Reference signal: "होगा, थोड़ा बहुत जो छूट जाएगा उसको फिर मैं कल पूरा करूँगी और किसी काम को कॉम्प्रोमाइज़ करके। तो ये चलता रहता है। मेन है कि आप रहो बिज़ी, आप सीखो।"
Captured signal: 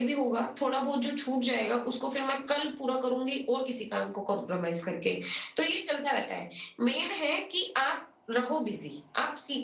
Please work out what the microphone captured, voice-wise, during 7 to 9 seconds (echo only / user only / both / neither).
echo only